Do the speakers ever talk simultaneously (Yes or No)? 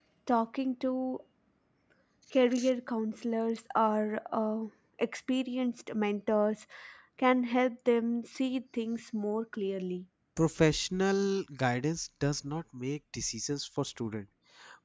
No